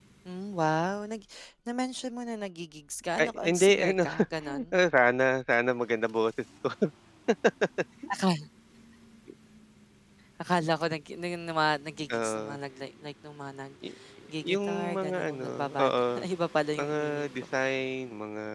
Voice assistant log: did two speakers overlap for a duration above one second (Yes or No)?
Yes